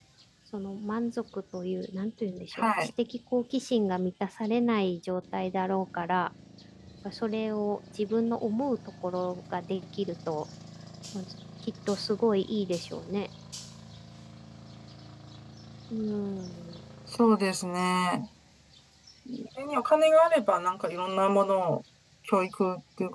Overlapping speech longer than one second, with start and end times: none

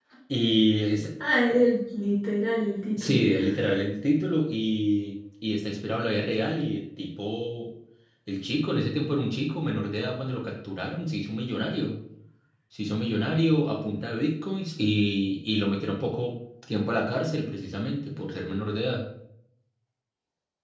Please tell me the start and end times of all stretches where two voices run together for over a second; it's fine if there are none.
none

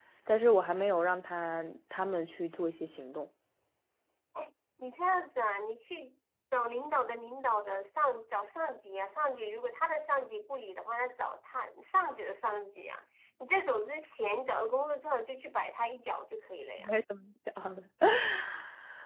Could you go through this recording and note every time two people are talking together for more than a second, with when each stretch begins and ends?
none

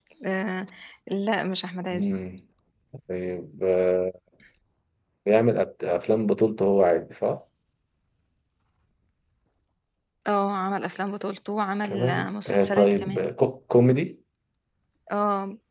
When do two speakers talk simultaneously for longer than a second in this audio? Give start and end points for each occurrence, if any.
11.8-13.3

